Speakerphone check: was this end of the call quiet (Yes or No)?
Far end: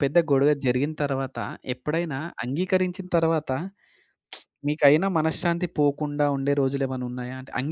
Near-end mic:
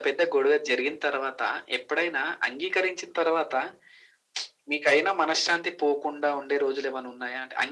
Yes